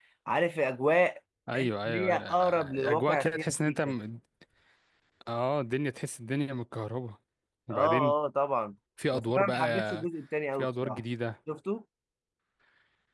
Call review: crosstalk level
present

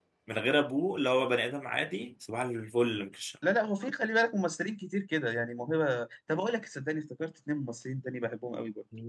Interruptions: none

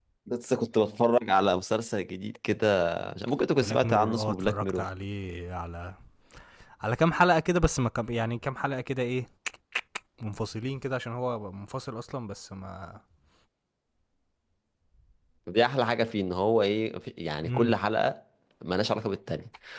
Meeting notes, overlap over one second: present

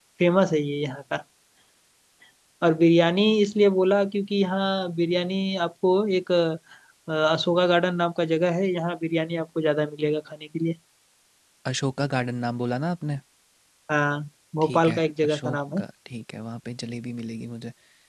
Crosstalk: present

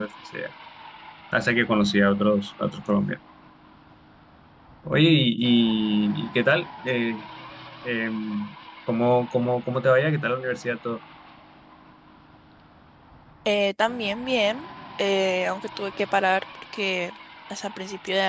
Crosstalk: none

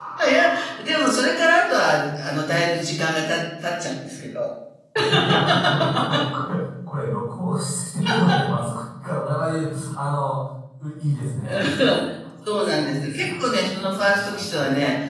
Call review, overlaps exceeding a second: present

